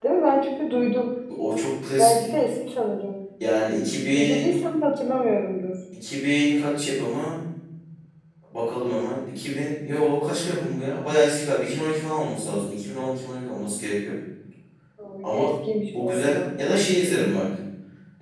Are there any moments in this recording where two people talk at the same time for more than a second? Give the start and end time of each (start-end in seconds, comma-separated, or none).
none